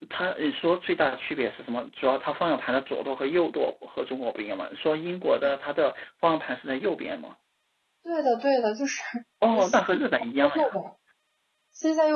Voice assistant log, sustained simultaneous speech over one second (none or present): present